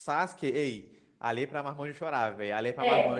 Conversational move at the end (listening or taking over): taking over